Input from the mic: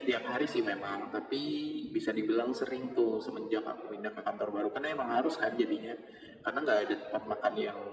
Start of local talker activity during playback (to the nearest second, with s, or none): none